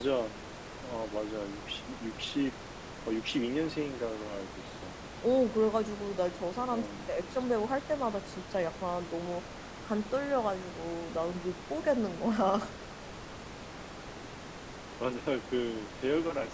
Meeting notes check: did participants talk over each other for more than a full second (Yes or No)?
No